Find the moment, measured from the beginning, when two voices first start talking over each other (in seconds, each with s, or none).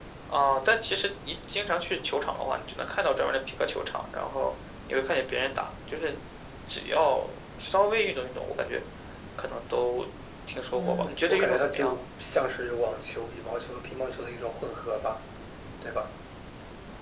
10.7 s